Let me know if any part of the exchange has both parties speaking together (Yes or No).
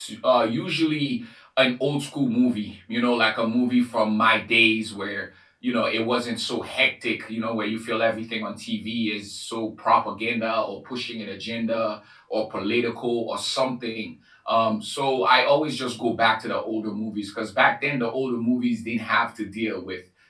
No